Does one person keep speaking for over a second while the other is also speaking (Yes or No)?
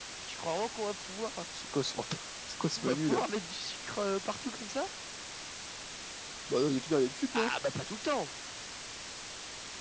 No